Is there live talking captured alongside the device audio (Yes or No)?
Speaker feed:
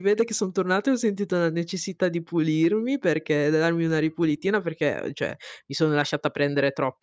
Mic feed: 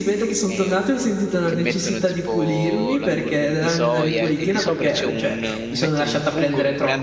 Yes